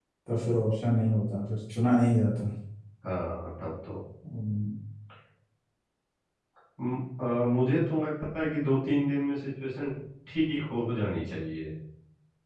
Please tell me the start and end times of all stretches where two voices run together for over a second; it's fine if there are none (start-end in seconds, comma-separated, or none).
none